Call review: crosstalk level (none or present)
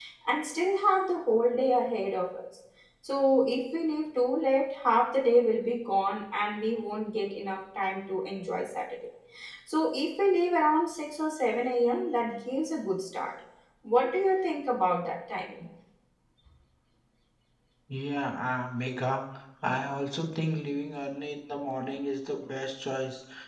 none